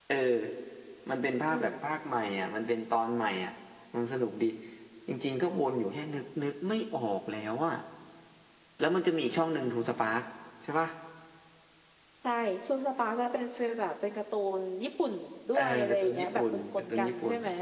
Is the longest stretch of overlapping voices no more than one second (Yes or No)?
No